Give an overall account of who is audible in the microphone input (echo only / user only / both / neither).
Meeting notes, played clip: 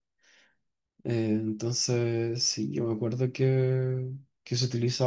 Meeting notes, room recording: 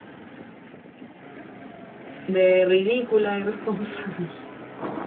user only